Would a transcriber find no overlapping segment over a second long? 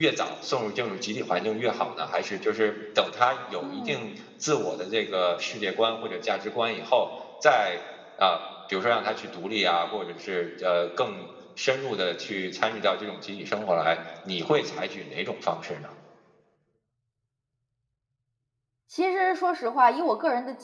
Yes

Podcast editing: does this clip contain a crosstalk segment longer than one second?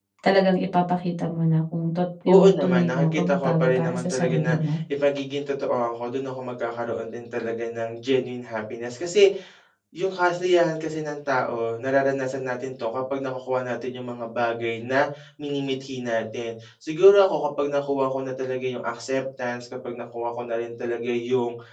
Yes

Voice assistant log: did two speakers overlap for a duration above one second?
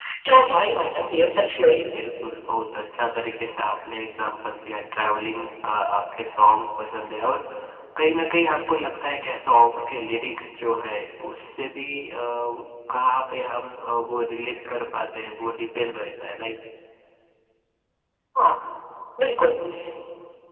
No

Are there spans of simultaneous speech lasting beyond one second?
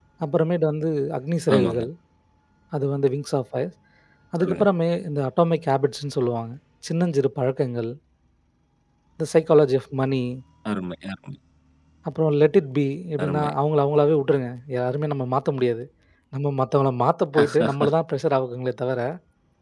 No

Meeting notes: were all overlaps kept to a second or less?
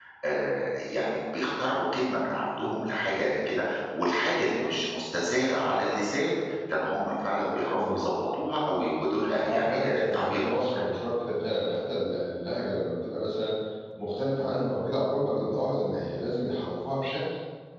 No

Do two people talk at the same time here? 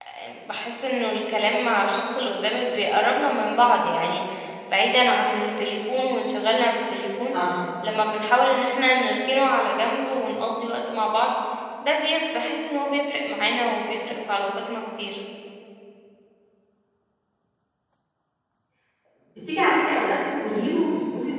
No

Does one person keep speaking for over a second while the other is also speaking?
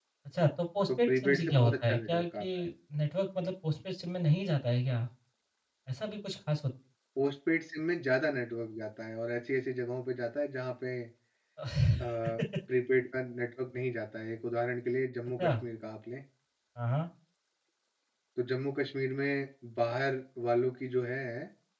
Yes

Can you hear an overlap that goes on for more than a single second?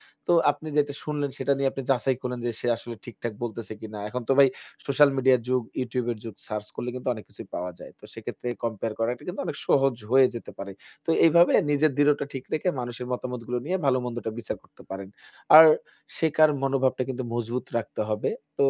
No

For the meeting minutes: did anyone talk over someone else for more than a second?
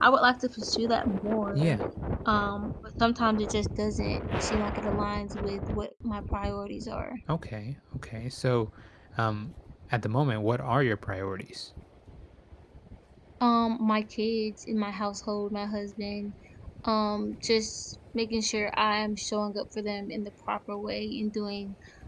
No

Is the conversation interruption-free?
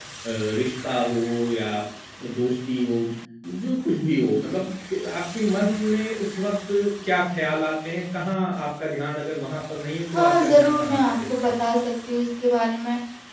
No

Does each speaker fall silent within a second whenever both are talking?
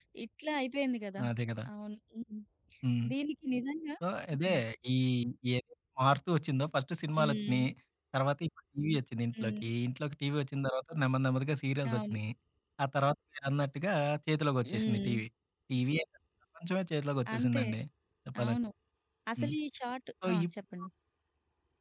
Yes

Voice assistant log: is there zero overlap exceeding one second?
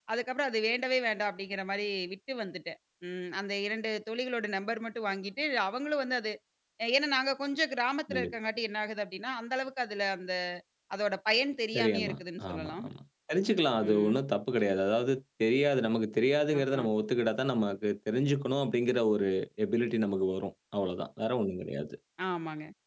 Yes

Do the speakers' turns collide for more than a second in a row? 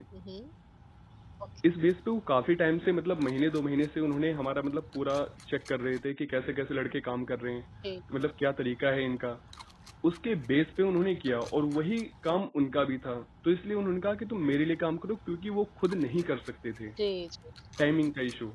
No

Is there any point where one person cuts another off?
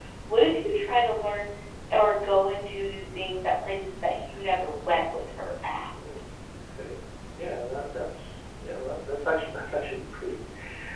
No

